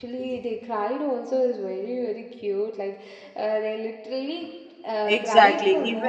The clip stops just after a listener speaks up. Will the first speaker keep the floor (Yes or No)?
No